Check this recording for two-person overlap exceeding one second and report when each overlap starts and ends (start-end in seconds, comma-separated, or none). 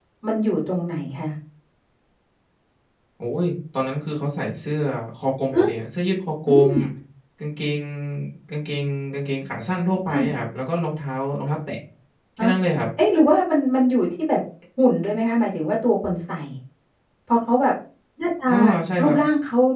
none